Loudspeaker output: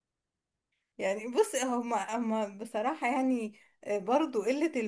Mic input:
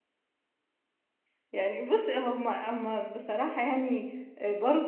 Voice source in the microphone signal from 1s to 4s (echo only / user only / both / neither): echo only